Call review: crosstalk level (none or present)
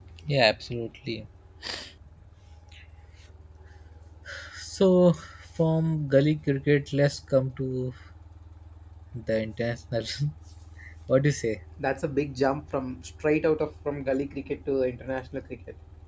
none